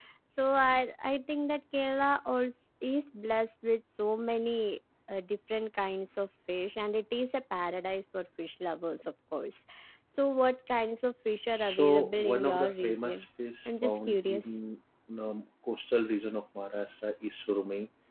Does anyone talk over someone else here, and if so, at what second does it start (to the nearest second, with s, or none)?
12 s